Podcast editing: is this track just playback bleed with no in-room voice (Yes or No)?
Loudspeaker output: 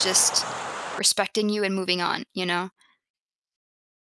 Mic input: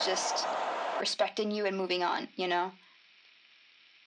Yes